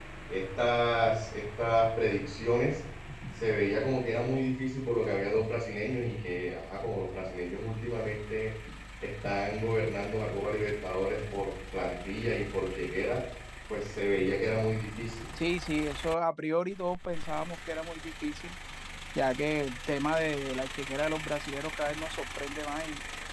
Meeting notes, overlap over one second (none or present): none